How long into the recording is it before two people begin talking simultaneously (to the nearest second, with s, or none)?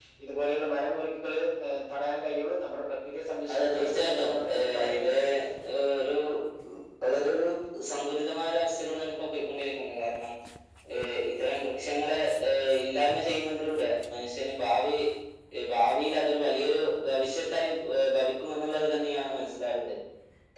3 s